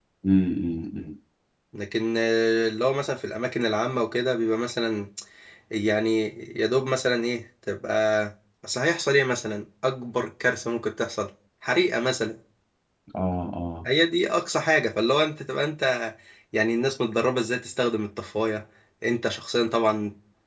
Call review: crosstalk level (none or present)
none